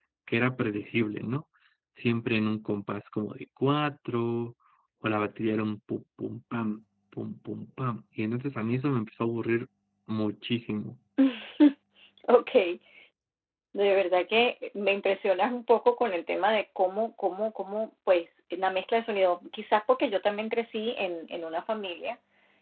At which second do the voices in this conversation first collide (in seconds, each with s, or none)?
none